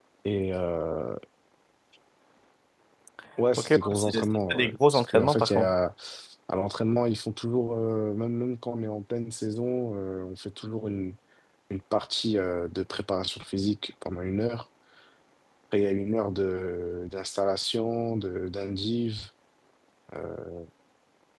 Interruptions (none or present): present